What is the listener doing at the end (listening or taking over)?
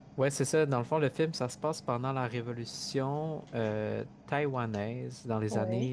listening